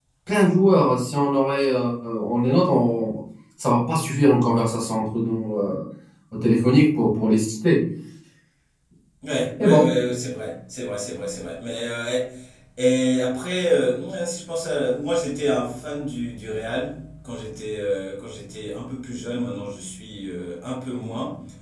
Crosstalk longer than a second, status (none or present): none